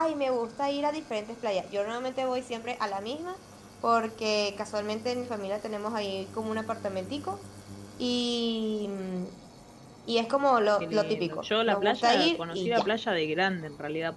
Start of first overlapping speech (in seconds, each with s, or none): 10.8 s